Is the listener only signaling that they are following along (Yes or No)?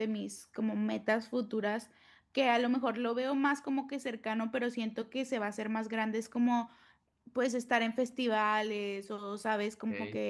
Yes